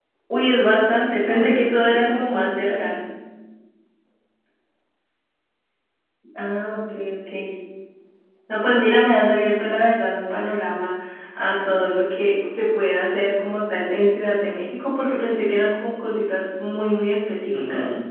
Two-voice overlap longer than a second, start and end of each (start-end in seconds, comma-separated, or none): 1.2-3.0